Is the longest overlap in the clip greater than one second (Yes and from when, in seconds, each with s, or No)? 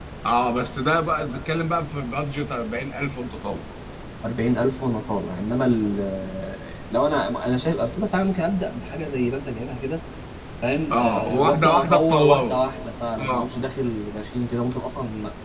Yes, from 10.9 s